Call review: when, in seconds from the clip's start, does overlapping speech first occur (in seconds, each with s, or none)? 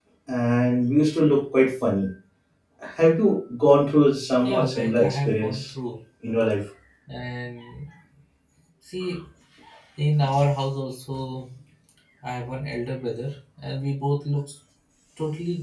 4.4 s